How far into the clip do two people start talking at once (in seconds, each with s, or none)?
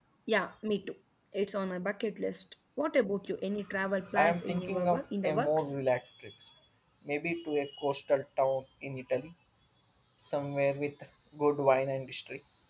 4.1 s